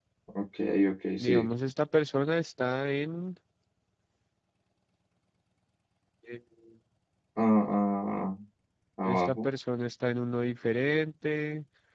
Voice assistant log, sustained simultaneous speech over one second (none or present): none